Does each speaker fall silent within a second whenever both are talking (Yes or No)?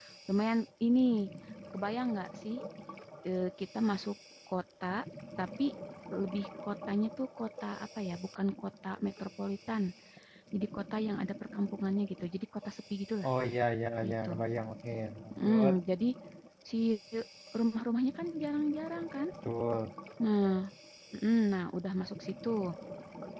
Yes